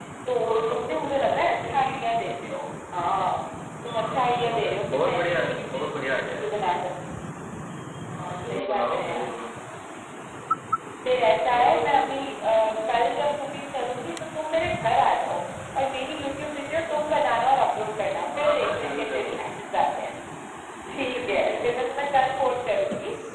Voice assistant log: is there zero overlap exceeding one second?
No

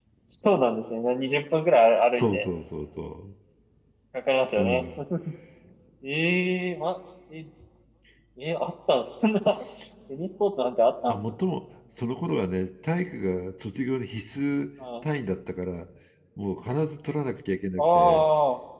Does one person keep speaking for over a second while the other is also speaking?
No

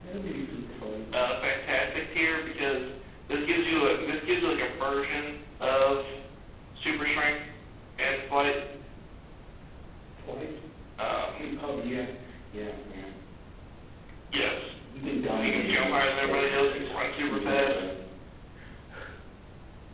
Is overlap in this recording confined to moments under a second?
No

